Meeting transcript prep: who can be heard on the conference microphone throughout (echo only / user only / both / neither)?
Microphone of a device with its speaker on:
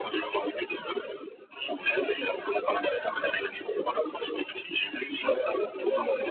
echo only